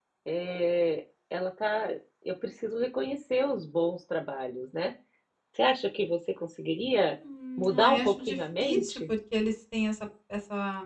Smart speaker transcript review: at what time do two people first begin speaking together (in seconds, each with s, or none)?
7.6 s